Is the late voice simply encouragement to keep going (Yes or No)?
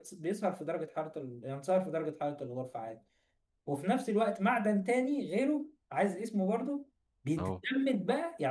Yes